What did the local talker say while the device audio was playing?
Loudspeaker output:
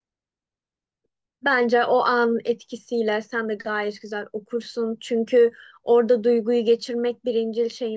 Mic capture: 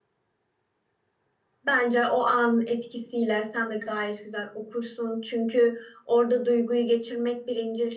none

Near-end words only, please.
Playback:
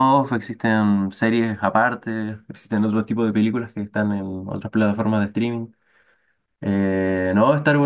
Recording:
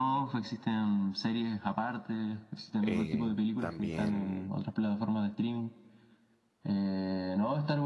Eh, también,

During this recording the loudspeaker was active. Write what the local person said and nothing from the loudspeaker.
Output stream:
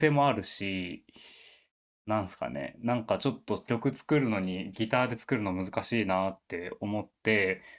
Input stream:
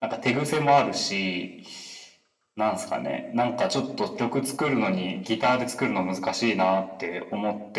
none

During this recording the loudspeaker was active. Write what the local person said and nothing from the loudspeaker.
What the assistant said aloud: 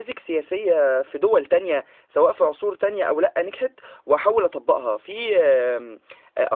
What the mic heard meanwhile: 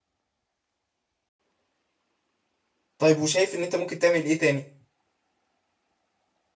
طيب وشايف ان انت ممكن تعمل ايه تاني

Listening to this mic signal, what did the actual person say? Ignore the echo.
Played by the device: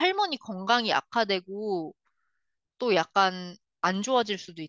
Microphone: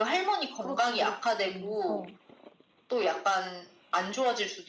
그렇지, 그렇지. 어.

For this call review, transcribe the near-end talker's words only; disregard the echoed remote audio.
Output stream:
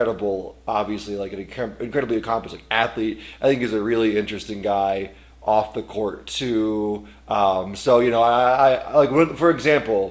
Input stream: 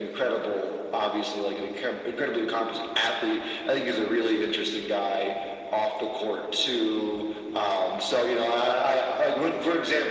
none

